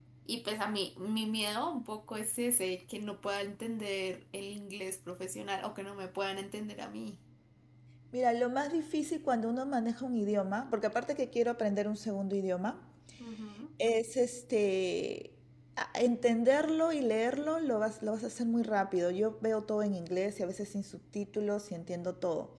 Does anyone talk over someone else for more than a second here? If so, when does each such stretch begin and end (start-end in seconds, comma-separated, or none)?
none